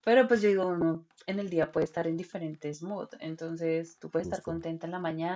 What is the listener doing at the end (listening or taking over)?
listening